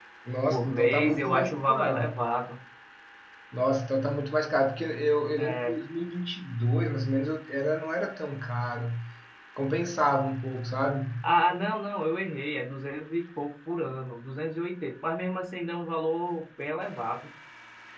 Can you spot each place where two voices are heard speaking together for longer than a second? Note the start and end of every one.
0.5-2.1

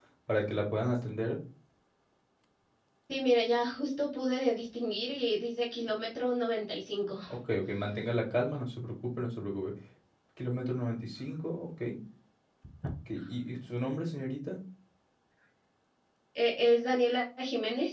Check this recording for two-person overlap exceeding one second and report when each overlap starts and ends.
none

